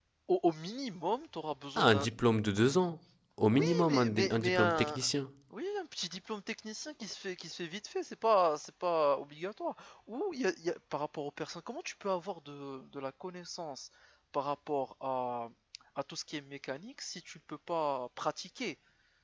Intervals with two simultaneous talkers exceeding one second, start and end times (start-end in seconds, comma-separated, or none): 3.5-5.0